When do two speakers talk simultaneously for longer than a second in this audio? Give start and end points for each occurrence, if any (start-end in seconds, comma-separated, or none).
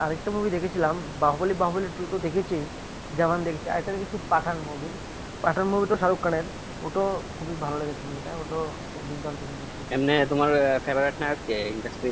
none